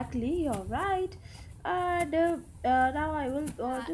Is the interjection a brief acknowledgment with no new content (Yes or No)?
No